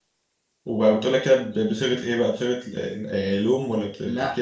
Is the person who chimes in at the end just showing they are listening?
No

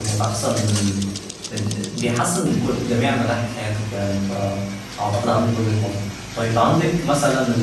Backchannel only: Yes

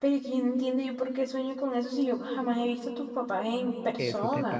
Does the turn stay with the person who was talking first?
No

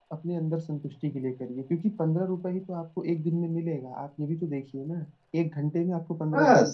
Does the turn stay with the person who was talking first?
Yes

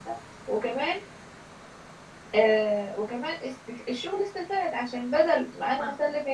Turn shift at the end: No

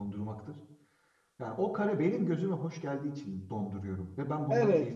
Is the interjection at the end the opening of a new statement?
Yes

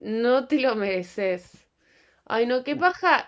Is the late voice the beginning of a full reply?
No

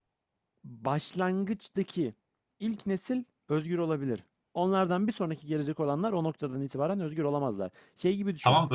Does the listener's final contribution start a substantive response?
Yes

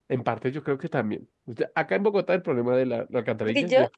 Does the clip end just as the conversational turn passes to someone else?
Yes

